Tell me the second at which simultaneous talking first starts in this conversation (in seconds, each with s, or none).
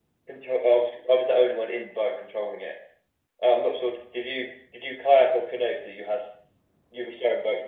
none